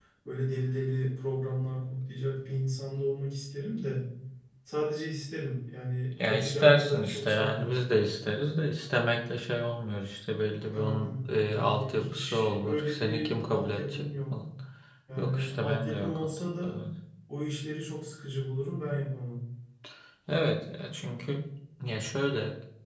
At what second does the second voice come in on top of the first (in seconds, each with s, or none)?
6.2 s